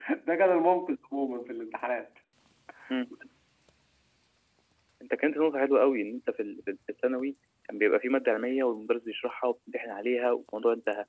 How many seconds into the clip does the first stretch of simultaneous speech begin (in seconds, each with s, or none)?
none